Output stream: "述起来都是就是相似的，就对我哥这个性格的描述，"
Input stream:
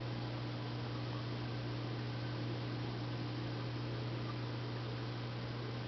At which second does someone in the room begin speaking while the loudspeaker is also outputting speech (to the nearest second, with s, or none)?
none